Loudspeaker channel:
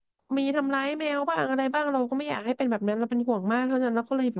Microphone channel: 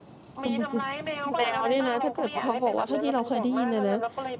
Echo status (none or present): present